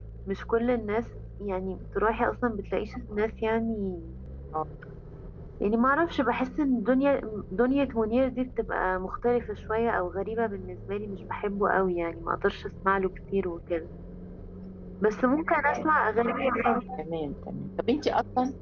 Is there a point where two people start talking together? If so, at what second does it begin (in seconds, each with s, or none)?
none